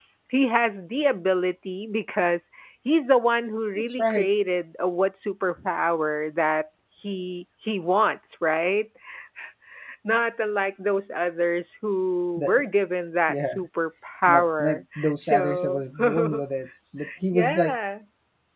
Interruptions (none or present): present